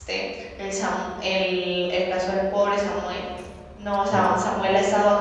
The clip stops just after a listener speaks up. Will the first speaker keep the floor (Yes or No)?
Yes